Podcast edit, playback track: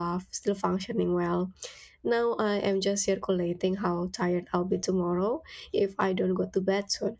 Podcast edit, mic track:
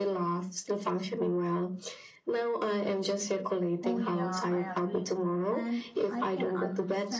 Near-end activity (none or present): present